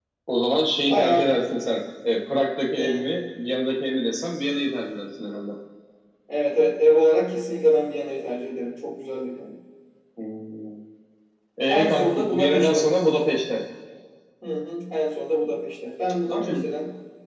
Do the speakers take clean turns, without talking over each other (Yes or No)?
No